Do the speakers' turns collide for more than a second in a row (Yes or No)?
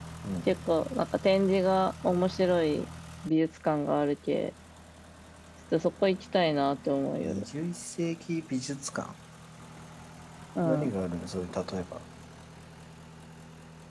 No